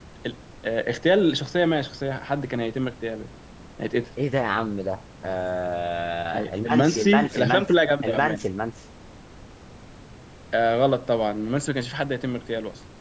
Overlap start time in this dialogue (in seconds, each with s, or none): 6.3 s